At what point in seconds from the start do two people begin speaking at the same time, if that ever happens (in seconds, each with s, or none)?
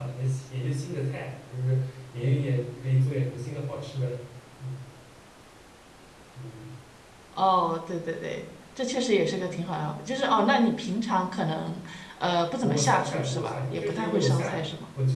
12.6 s